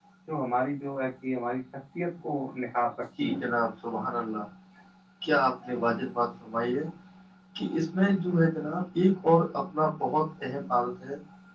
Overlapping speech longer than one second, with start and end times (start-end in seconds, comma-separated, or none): none